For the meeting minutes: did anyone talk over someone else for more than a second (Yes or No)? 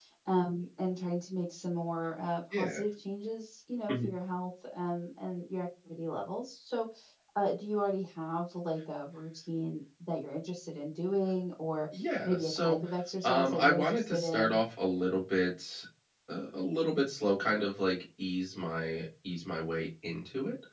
Yes